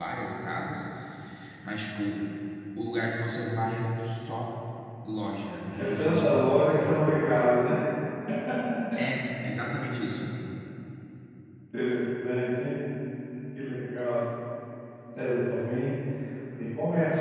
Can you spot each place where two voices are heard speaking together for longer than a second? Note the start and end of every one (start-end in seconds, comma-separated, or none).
5.8-7.0